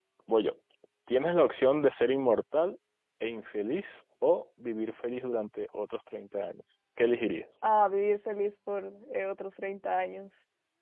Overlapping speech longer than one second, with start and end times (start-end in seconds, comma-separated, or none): none